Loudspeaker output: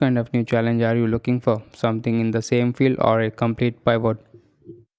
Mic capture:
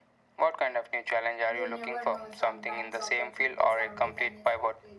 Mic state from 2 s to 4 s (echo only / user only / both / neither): both